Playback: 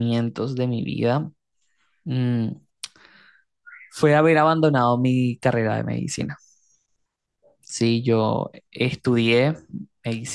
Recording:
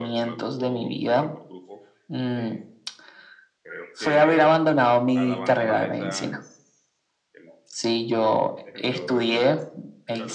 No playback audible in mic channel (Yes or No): No